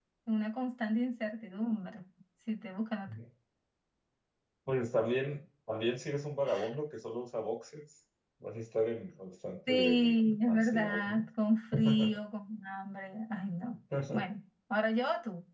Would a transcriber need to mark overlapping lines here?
Yes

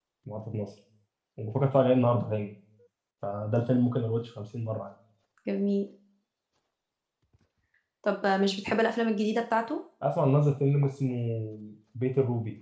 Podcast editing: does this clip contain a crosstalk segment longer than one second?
No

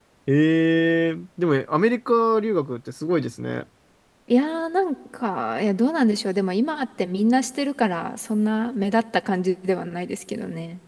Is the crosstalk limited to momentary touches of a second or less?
Yes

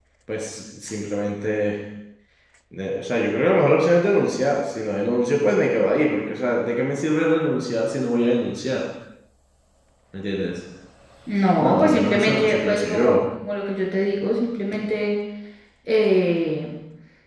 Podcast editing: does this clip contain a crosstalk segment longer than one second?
Yes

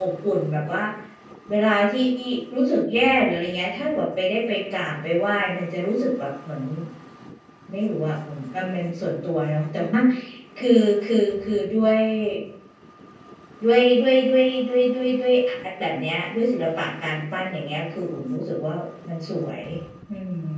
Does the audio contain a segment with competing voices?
No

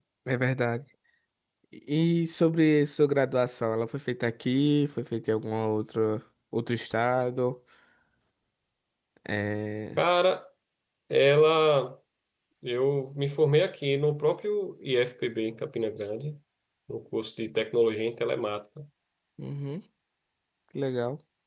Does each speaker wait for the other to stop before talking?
Yes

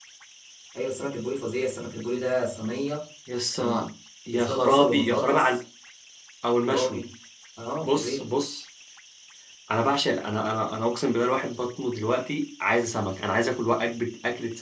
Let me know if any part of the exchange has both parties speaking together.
Yes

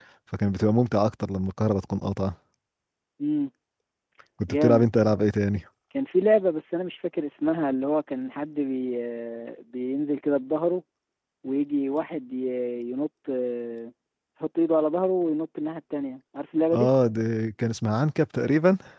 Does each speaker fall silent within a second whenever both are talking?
Yes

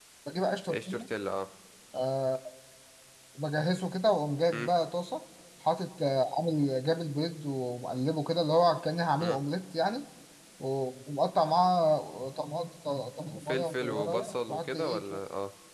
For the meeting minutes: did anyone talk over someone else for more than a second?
Yes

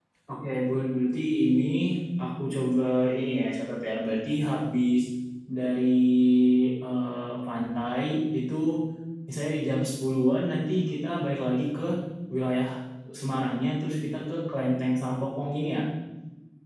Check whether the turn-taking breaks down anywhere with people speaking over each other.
No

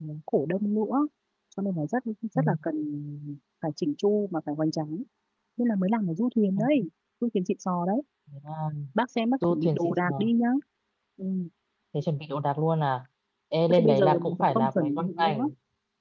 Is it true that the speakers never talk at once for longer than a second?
No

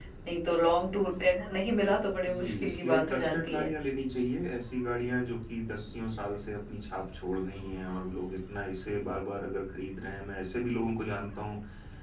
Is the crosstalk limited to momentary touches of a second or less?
No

